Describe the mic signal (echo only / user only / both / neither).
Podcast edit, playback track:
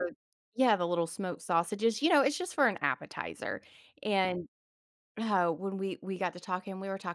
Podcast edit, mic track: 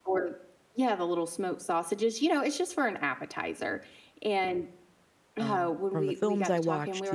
both